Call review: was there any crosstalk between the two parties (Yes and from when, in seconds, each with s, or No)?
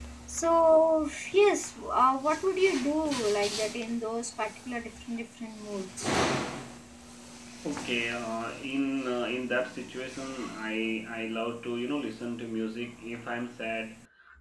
No